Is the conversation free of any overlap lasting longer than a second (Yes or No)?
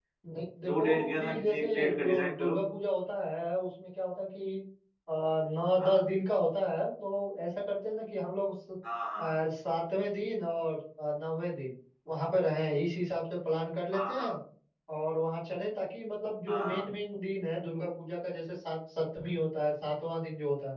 No